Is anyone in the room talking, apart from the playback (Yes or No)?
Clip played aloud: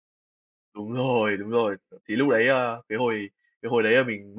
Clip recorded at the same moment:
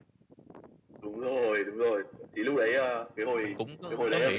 Yes